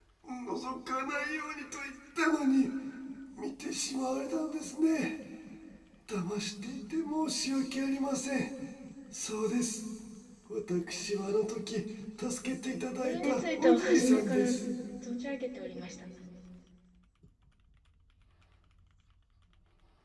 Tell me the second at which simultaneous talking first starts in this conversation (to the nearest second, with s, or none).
13 s